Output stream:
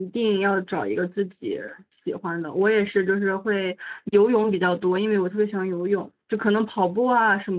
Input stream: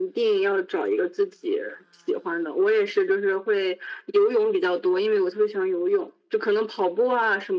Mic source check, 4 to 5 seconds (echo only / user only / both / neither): echo only